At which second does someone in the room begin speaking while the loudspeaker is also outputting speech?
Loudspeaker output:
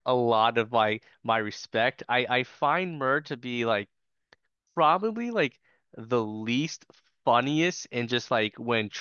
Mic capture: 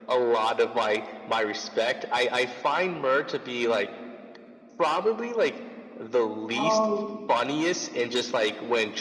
6 s

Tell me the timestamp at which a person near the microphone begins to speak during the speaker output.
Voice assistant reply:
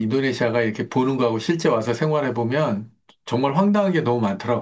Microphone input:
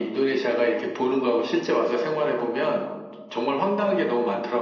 none

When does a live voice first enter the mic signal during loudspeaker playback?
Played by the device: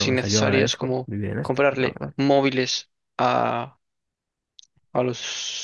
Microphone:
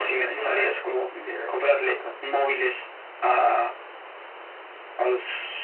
none

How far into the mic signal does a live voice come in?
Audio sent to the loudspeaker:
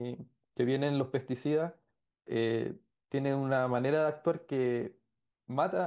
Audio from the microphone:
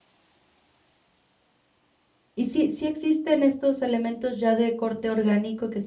2 s

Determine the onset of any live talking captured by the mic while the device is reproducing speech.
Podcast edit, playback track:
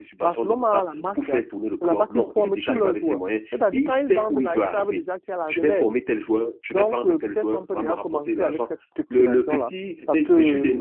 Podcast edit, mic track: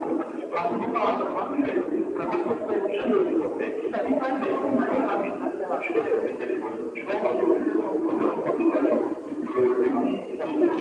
none

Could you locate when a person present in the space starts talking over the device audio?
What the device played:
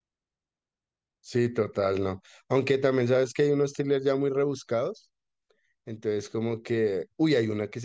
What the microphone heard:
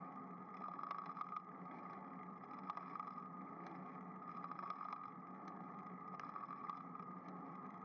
none

